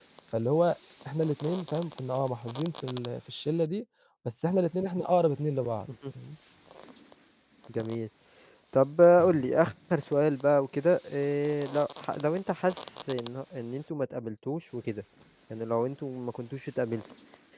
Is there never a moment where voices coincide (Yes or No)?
Yes